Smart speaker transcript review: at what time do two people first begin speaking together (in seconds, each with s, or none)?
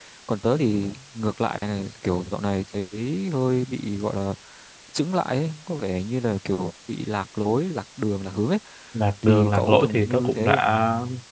9.2 s